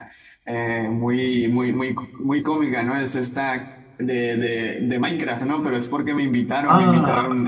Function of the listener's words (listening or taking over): listening